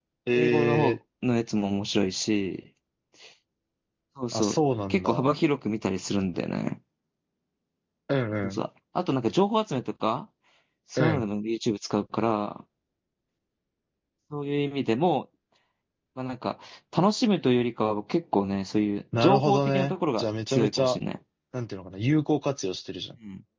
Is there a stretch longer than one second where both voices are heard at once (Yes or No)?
Yes